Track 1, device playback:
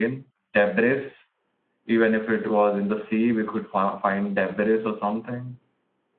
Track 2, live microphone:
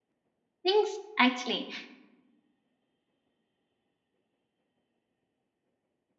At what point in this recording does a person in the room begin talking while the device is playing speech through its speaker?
0.6 s

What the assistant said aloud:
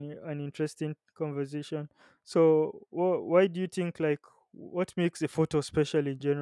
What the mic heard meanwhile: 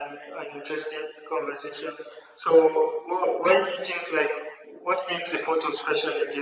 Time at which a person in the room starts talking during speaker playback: none

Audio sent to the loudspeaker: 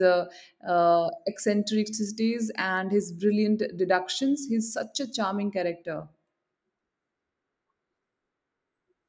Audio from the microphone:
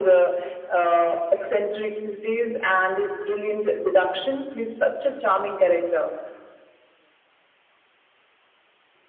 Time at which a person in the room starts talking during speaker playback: none

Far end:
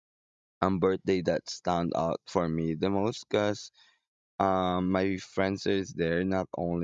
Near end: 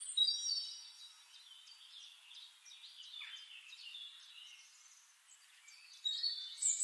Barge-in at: none

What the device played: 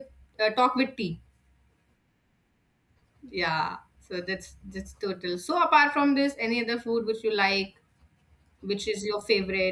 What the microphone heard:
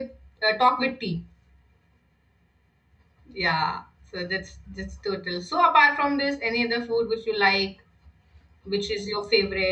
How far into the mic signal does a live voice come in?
none

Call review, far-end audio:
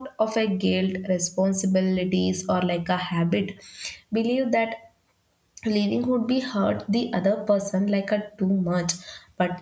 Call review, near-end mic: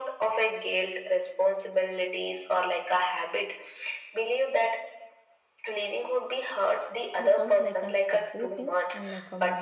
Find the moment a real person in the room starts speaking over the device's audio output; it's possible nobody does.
7.2 s

